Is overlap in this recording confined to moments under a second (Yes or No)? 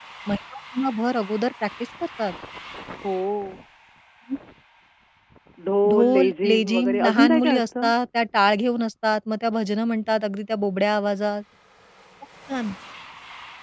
No